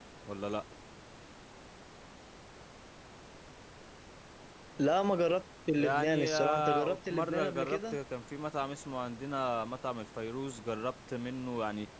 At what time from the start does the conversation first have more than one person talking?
5.7 s

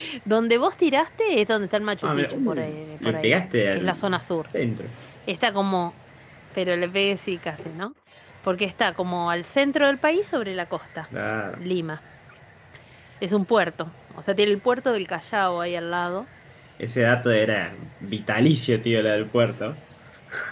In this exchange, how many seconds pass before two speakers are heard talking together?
2.0 s

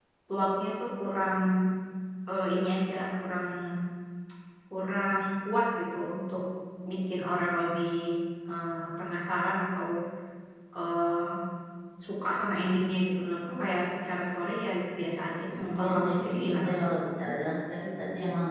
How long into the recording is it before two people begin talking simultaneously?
15.5 s

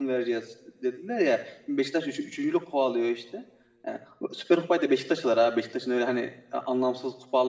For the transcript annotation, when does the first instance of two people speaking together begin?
none

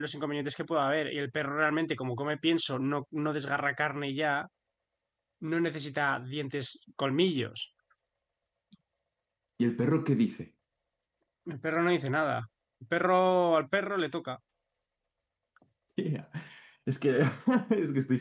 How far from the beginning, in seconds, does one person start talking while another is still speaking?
none

